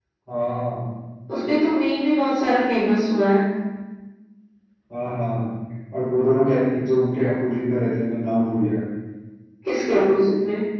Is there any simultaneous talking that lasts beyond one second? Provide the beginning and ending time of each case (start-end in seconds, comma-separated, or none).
none